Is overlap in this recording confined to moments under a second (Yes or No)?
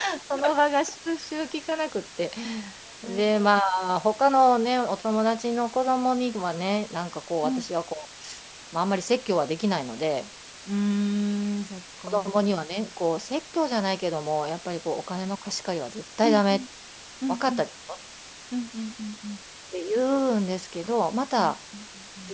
Yes